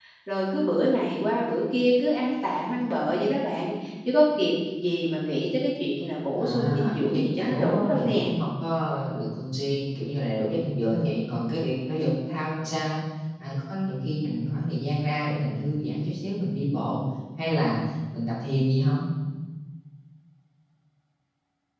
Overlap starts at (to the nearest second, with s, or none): 6 s